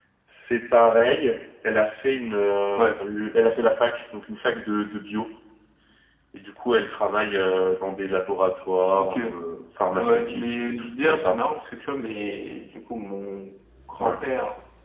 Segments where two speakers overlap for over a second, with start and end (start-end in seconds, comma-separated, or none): 9.9-11.4